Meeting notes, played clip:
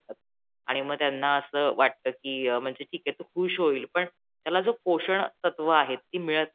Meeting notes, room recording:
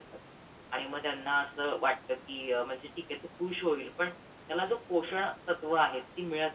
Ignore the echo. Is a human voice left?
No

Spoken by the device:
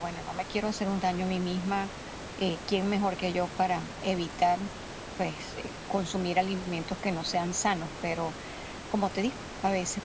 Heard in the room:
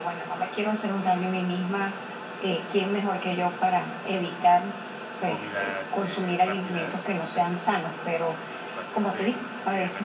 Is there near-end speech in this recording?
Yes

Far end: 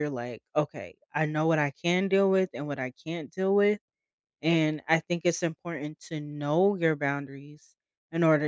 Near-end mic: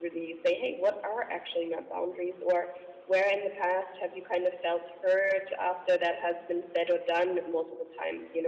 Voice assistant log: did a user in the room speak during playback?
Yes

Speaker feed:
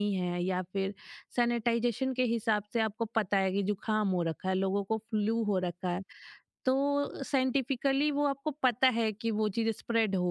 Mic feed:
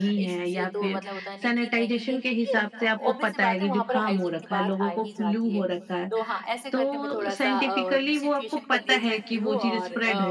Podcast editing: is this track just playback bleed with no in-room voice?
No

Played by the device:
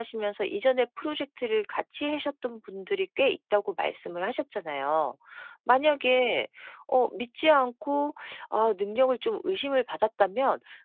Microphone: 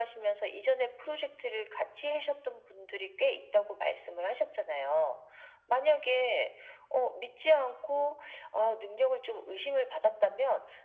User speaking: No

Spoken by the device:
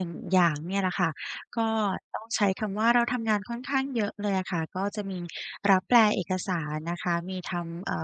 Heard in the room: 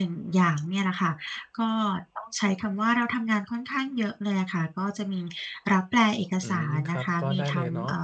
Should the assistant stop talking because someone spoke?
Yes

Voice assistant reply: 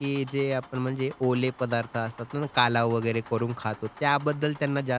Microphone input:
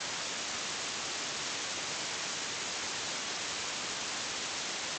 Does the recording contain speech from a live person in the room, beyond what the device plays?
No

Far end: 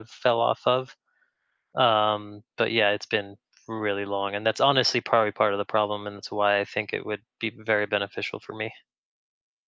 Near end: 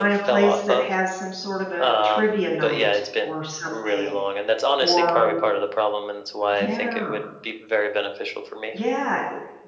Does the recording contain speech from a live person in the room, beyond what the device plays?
Yes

